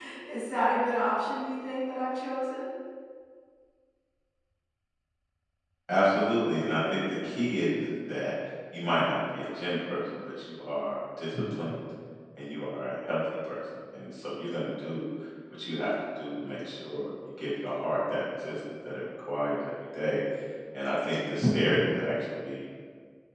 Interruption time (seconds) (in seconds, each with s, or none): none